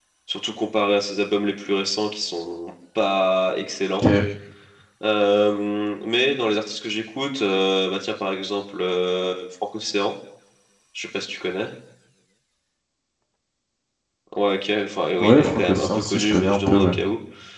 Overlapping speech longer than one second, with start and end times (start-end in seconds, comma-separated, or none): 15.2-16.9